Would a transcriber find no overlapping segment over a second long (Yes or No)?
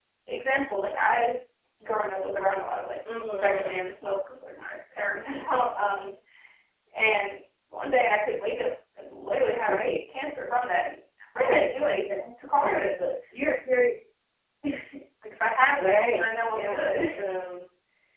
No